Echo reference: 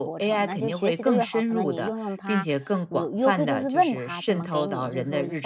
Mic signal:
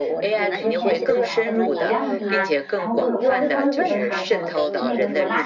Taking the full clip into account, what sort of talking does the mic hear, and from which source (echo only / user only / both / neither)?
both